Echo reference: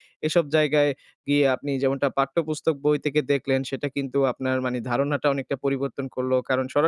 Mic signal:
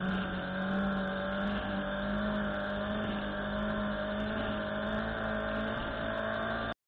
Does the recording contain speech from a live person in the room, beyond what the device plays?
No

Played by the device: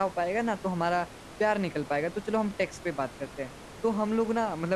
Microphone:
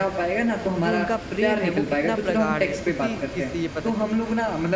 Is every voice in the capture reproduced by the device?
No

